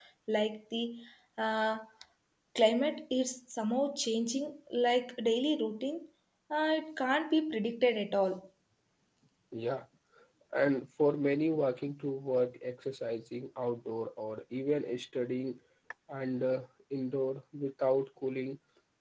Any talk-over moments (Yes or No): No